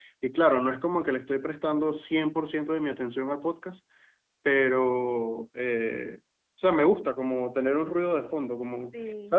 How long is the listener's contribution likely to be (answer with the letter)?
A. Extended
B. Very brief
B